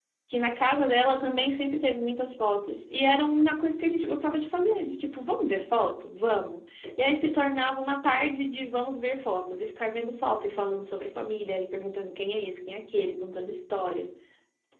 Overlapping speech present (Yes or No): No